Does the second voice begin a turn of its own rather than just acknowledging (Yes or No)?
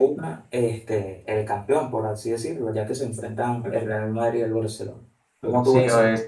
Yes